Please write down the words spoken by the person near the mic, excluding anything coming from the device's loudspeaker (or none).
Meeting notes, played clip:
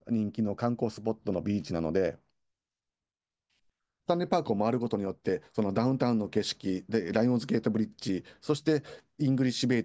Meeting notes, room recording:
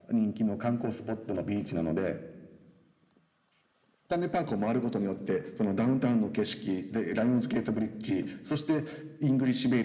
none